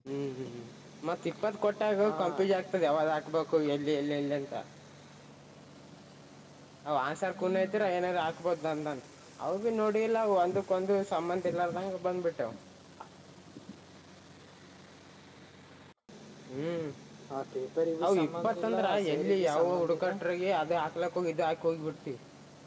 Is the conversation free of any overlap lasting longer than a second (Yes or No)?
No